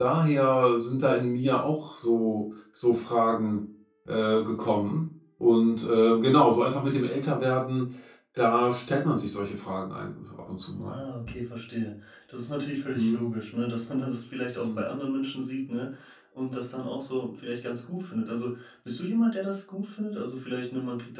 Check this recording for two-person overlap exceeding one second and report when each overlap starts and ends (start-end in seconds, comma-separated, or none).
none